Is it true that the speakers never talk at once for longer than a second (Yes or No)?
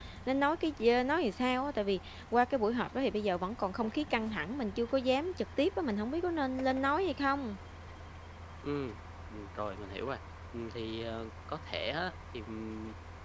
Yes